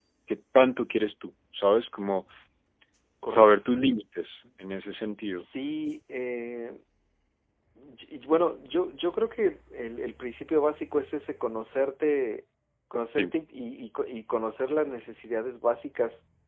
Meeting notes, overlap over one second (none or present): none